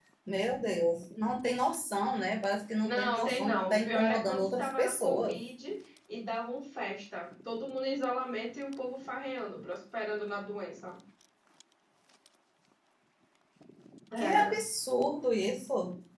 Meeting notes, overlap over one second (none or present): present